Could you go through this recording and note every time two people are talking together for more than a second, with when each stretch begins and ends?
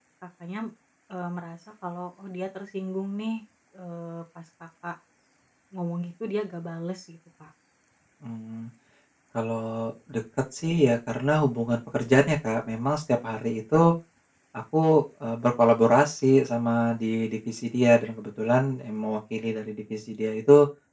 none

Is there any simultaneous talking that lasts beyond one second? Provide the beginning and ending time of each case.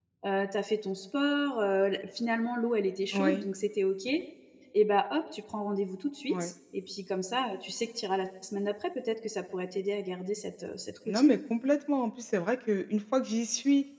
none

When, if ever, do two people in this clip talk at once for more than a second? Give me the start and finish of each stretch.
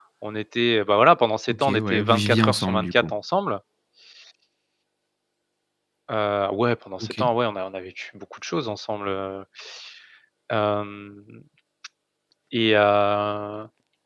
1.5-3.0

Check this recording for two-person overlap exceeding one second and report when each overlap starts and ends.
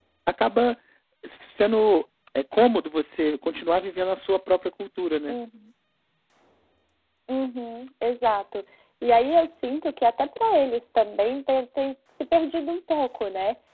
none

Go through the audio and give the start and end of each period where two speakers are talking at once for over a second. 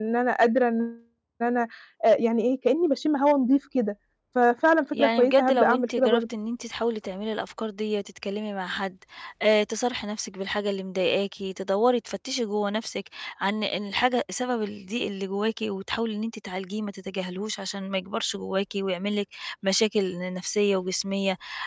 4.9-6.2

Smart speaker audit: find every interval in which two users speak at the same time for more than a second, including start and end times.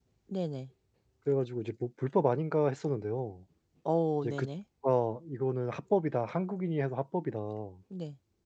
none

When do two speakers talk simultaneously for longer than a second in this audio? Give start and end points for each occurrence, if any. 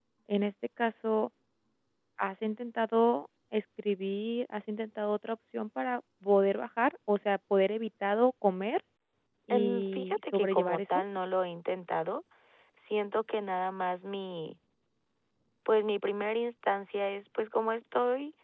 9.5-11.0

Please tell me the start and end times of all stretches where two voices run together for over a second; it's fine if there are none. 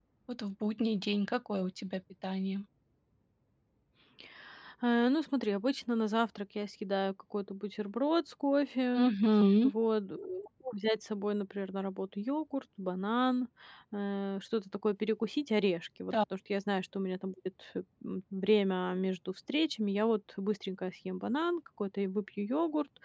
none

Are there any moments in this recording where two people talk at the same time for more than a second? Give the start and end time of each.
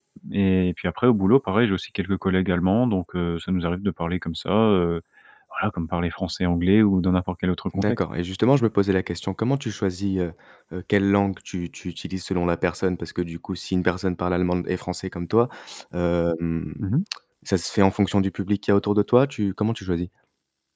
none

